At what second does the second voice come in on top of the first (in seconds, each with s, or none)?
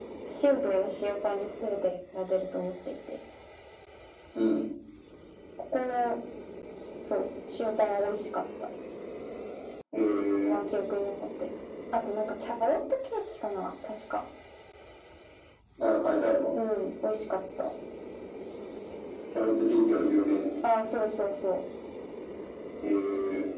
none